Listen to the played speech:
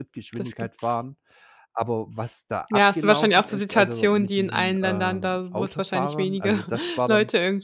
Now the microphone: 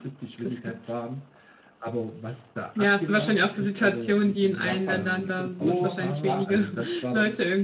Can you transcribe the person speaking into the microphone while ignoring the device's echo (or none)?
da fand ich diese Kultur, ja,